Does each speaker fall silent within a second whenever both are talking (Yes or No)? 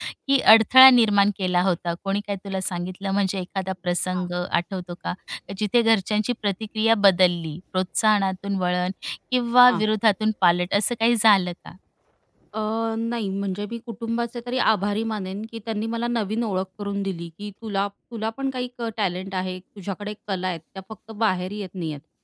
Yes